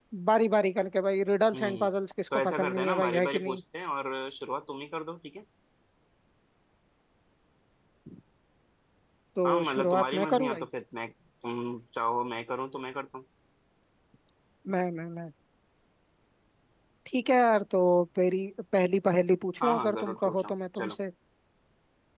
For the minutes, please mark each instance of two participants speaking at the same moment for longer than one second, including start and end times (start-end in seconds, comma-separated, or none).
2.3-3.6, 9.4-10.6, 19.6-21.0